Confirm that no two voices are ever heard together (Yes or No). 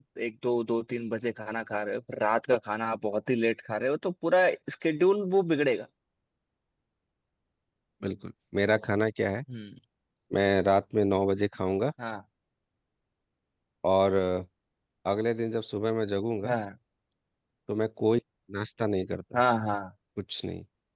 Yes